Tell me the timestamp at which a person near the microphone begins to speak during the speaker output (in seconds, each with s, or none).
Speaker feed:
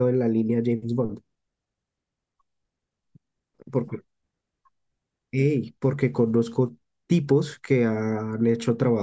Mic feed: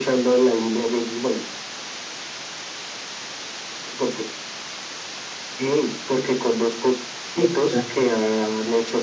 7.4 s